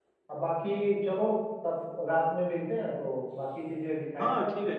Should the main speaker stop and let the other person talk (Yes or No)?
Yes